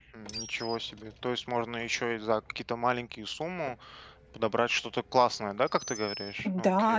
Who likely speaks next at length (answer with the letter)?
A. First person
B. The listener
B